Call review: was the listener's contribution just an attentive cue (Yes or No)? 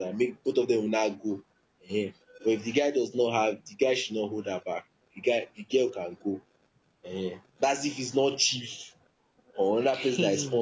Yes